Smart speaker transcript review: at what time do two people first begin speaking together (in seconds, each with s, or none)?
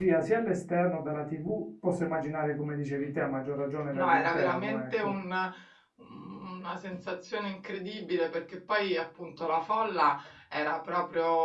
3.9 s